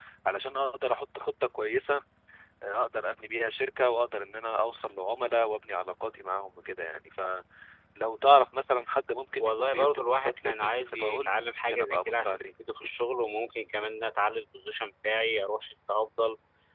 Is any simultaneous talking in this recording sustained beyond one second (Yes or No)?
Yes